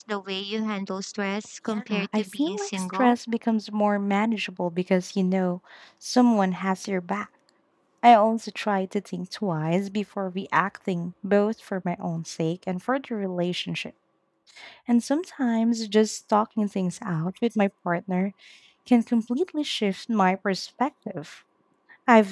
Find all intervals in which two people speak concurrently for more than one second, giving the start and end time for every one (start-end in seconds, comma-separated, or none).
1.7-3.1